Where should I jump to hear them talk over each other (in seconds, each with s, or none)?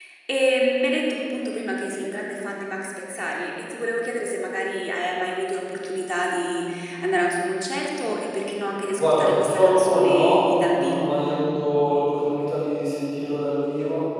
8.9 s